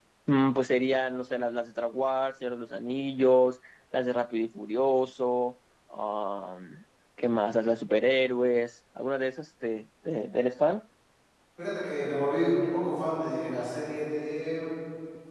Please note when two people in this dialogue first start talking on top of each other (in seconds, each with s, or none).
none